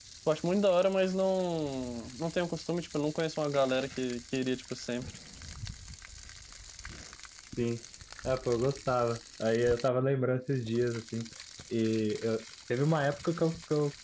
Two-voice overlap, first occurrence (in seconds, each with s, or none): none